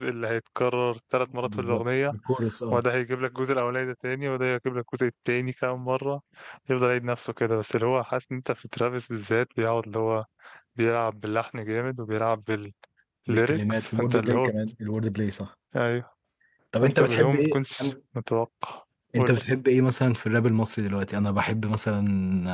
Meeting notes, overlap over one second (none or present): present